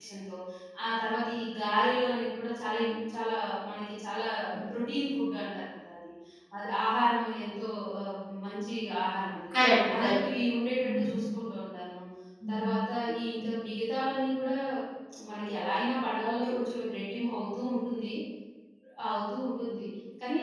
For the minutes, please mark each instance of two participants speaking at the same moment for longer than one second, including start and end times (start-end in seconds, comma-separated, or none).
none